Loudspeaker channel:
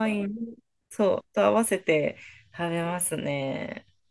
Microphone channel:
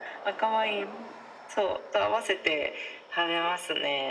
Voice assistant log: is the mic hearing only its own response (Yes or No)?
Yes